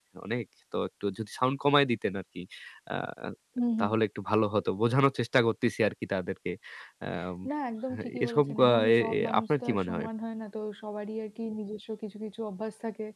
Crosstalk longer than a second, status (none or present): present